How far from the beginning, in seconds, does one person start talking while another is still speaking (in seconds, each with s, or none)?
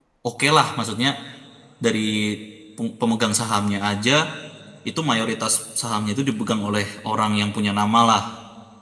none